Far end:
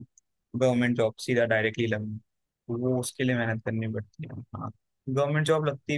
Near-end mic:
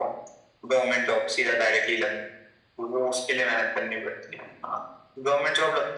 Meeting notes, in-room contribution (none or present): none